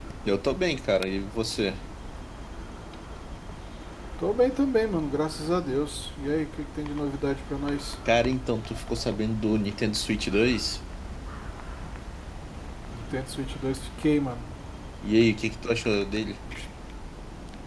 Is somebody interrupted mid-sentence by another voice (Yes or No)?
No